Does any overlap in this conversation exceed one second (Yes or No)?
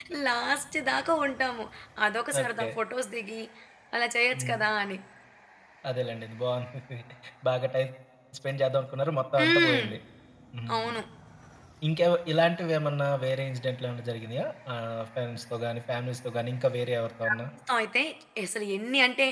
No